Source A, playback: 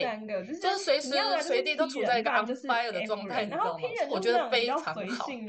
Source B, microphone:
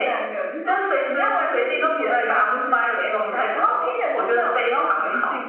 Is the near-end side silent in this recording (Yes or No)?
Yes